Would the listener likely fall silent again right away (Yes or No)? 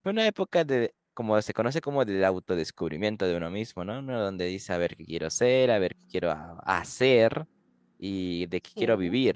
Yes